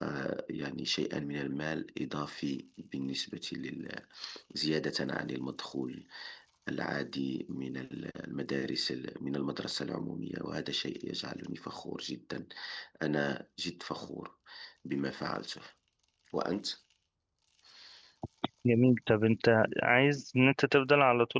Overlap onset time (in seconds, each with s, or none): none